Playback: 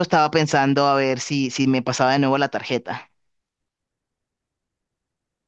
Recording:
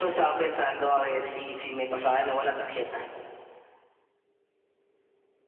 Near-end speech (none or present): none